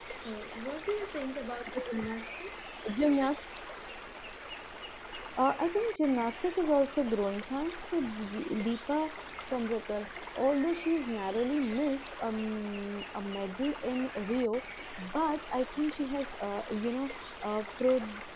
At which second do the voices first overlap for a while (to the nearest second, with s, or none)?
none